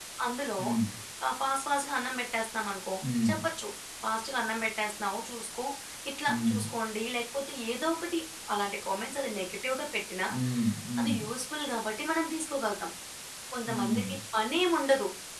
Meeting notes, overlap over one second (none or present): none